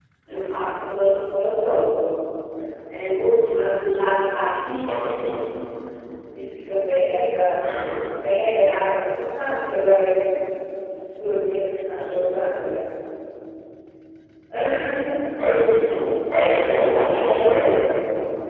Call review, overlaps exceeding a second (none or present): present